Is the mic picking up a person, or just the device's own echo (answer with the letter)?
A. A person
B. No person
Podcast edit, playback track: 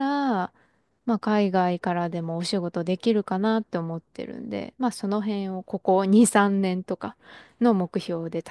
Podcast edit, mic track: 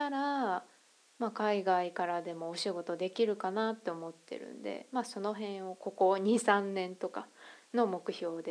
B